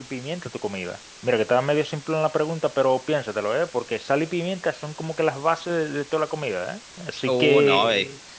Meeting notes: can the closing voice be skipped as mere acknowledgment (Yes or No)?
No